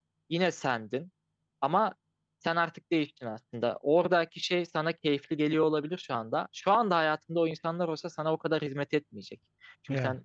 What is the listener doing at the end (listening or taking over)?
listening